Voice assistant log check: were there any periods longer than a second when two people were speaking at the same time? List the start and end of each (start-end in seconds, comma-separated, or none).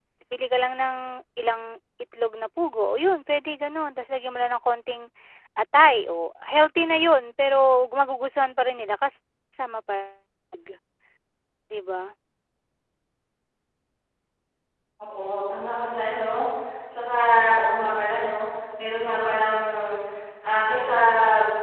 none